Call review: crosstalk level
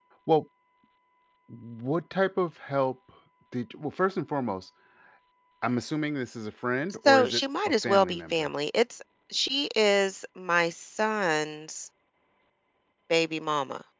present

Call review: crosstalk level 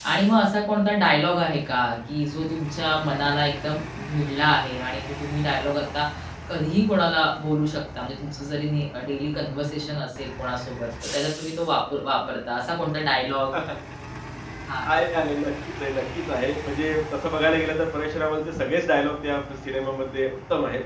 none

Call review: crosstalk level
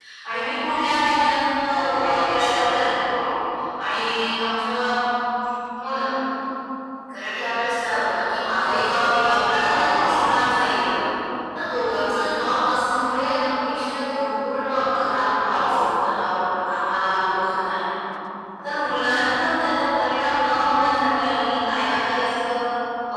present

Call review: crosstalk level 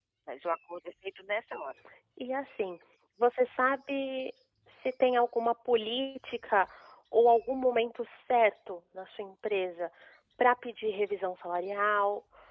none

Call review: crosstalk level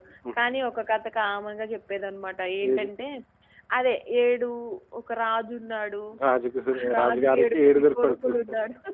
present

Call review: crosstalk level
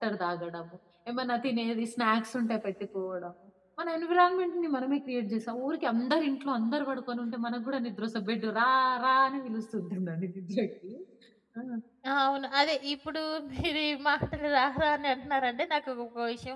none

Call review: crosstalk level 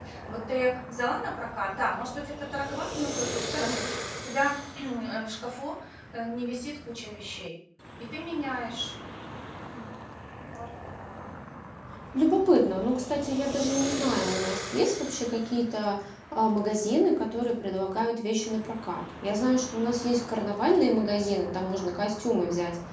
none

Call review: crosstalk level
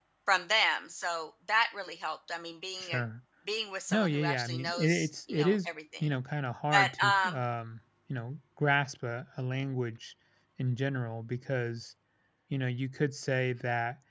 present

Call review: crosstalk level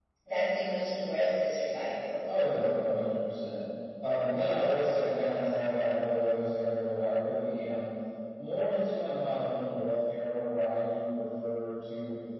none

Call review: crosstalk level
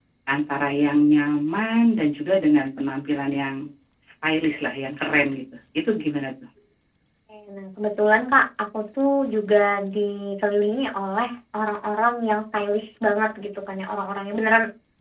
none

